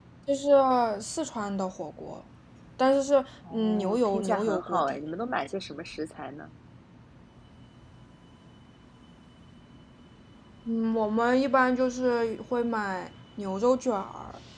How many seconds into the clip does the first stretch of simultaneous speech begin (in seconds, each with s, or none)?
3.5 s